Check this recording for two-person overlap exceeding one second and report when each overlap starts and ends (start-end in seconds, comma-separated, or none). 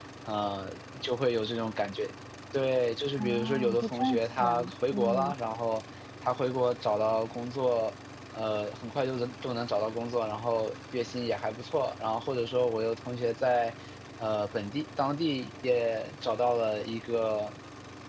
3.2-5.3